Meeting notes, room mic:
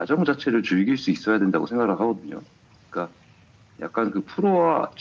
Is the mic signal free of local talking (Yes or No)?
Yes